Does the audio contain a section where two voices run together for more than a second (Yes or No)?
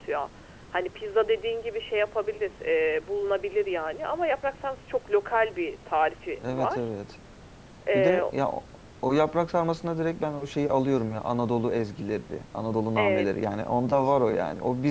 No